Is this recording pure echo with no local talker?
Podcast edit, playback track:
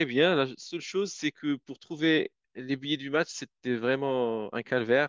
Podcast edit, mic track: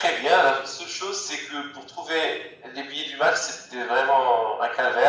Yes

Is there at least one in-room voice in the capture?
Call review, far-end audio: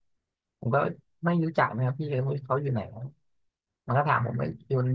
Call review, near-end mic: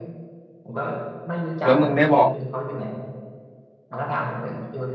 Yes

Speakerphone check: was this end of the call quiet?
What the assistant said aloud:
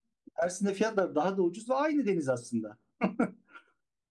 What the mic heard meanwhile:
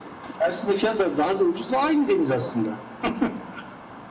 Yes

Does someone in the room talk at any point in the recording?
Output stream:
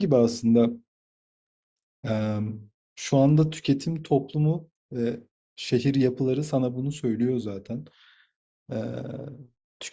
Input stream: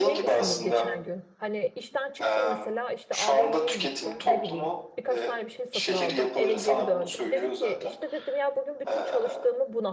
Yes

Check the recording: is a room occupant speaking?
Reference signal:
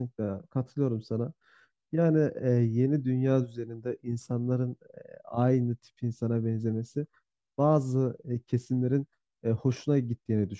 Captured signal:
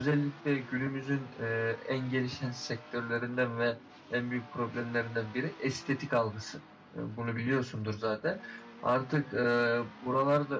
Yes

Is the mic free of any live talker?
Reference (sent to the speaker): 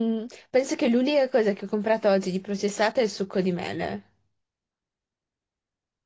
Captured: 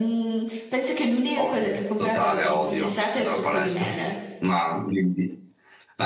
No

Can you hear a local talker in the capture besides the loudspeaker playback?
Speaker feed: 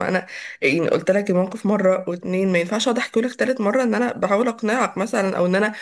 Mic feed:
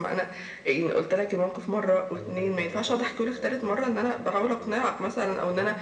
Yes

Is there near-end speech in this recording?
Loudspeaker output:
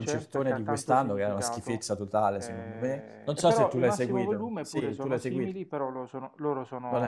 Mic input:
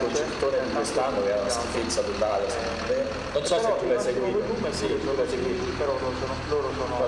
No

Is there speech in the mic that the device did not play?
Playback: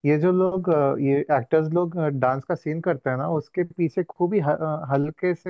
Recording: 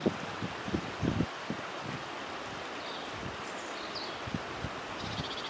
No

